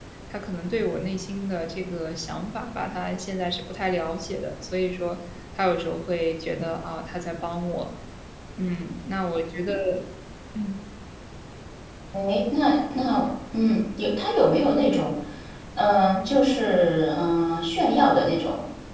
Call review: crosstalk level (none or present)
none